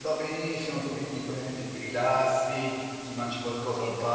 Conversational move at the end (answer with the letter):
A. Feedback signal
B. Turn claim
A